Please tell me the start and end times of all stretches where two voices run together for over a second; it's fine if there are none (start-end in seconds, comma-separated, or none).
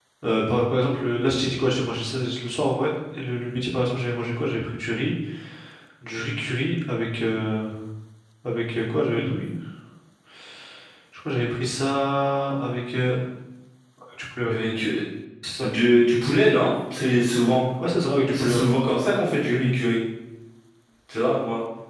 none